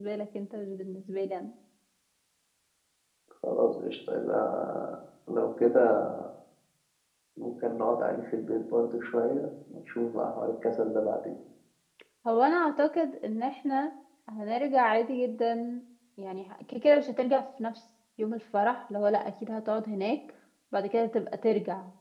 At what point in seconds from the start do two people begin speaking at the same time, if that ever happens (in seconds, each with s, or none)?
none